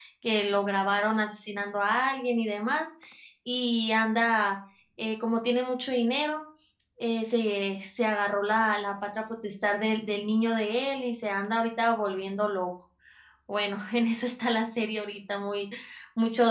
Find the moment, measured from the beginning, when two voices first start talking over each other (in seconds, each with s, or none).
none